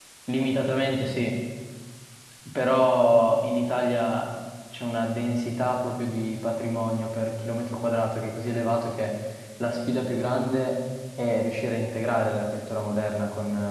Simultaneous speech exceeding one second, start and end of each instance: none

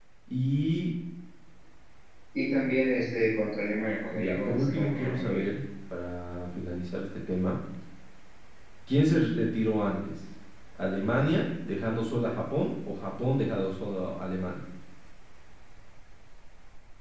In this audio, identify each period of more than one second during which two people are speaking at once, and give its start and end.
4.1-5.5

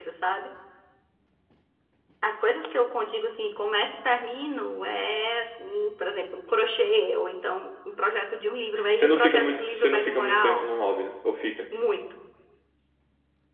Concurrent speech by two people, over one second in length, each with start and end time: 8.9-10.7

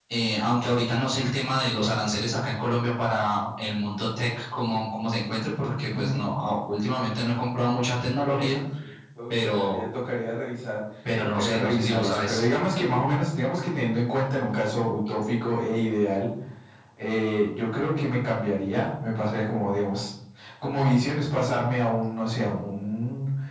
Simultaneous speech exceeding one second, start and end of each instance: 11.2-12.4

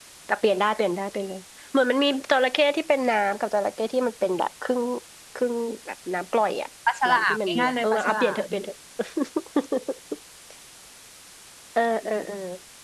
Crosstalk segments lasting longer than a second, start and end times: 7.1-8.4

